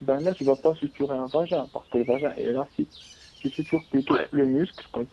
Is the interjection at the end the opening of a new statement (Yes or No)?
No